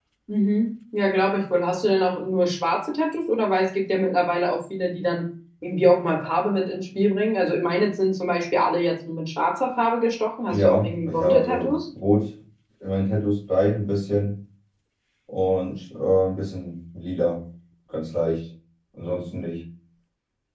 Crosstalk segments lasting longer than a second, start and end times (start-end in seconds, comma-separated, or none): 10.5-11.7